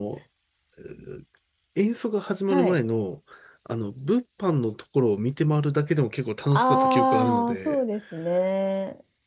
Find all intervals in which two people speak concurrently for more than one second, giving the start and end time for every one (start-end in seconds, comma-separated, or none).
6.5-7.8